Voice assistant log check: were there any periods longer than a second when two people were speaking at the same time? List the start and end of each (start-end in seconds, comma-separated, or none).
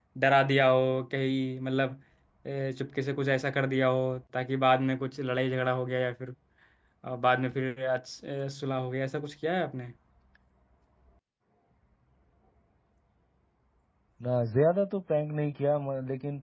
none